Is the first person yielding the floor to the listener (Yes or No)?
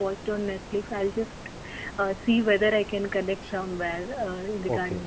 Yes